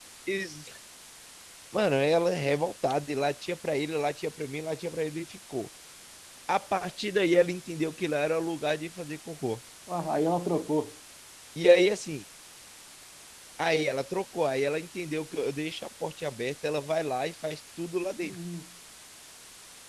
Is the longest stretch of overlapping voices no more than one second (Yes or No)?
Yes